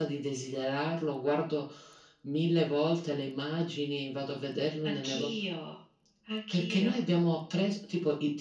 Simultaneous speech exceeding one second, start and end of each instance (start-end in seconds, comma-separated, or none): none